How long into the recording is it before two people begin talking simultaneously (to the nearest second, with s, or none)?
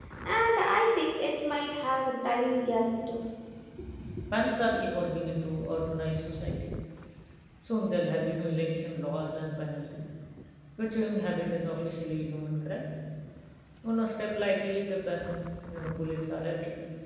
none